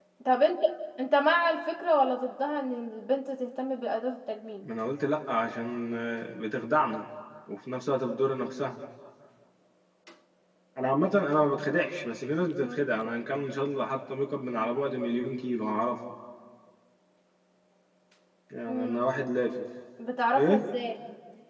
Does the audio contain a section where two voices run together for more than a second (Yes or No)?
No